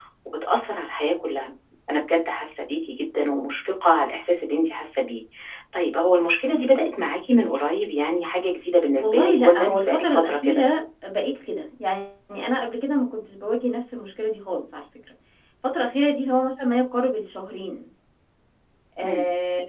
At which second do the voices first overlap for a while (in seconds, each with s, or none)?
9.0 s